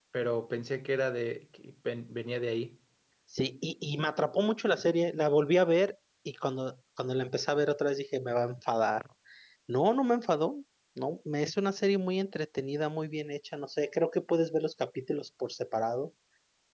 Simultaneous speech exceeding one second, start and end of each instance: none

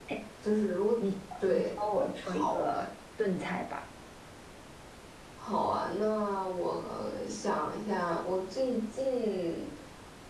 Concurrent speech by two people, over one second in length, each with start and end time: 1.5-2.8

